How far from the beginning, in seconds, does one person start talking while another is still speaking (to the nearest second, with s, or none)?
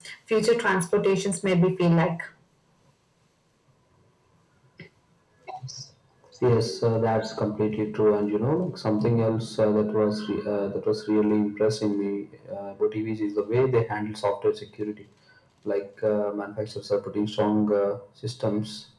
none